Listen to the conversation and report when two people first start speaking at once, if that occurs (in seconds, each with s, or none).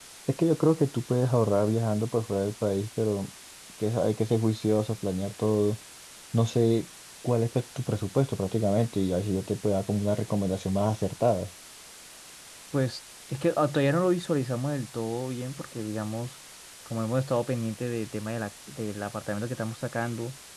none